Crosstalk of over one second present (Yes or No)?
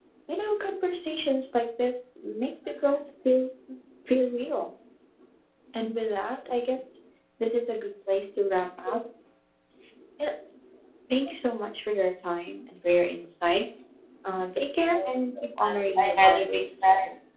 Yes